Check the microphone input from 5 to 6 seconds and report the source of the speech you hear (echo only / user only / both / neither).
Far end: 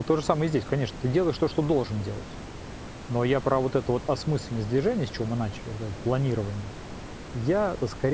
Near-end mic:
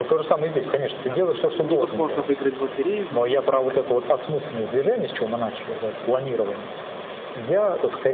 echo only